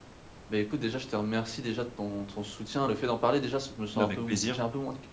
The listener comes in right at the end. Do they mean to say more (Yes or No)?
No